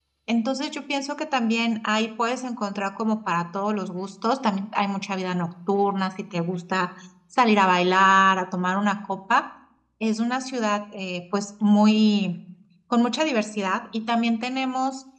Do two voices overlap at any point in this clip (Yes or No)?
No